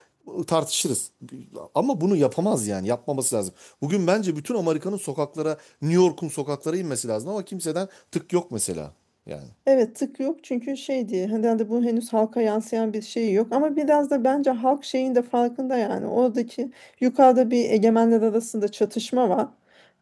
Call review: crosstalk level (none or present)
none